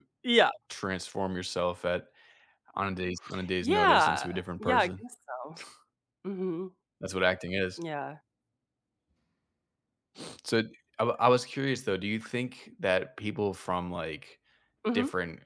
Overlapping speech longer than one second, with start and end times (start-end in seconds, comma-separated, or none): 3.6-4.9